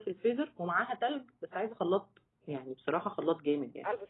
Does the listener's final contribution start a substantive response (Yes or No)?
No